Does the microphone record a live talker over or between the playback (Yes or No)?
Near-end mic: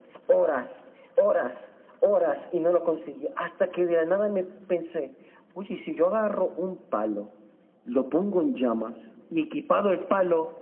No